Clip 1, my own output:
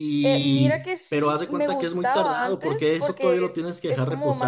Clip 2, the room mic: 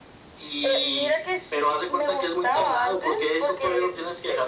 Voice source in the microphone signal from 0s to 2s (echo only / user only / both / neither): echo only